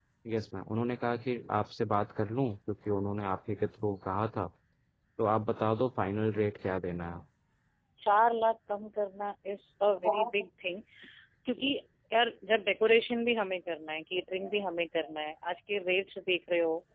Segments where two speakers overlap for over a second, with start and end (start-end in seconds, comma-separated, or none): none